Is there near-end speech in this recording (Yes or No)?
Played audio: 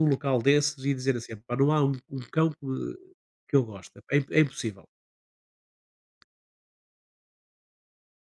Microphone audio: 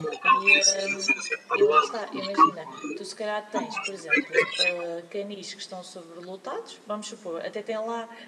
Yes